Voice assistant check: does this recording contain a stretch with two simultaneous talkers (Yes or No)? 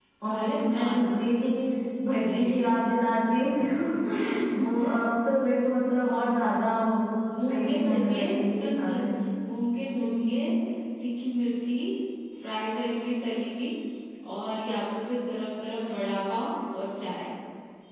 Yes